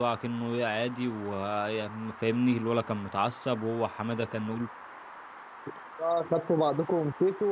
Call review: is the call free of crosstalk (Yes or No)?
Yes